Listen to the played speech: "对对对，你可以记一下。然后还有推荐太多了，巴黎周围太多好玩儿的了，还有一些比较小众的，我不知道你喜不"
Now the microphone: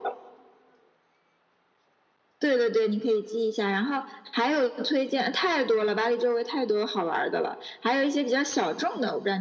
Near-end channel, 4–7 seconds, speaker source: echo only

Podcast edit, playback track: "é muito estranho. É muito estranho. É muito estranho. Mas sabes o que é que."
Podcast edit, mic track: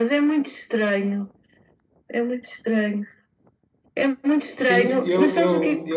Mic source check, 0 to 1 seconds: echo only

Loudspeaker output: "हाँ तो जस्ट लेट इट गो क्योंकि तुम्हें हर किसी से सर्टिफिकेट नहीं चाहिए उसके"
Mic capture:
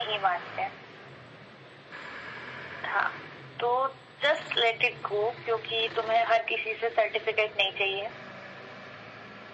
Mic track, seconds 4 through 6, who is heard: echo only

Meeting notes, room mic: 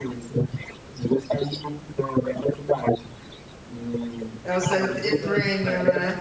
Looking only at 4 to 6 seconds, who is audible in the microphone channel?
both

